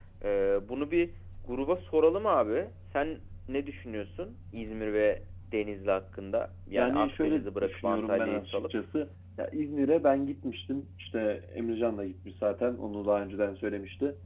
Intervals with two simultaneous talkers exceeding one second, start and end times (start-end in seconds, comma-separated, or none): 6.8-8.7